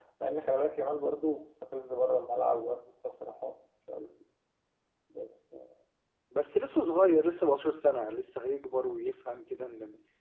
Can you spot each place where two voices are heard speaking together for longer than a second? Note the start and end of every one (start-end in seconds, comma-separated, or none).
none